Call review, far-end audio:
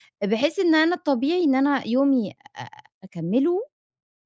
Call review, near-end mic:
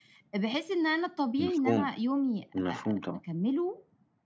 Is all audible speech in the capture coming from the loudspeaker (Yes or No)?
No